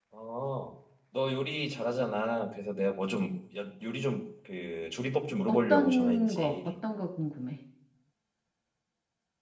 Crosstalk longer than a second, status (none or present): present